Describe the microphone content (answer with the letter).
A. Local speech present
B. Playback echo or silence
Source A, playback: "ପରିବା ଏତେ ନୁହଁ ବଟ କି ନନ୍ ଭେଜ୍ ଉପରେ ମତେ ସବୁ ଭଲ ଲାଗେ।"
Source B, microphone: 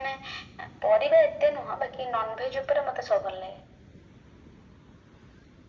B